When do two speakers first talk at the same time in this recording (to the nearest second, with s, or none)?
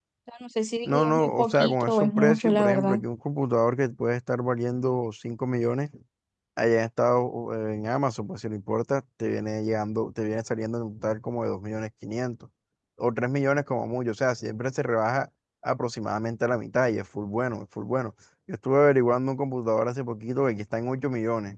1 s